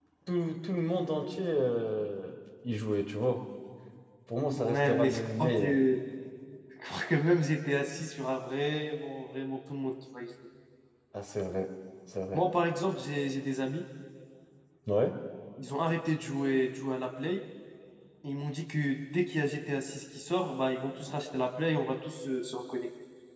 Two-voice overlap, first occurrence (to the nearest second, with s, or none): 5 s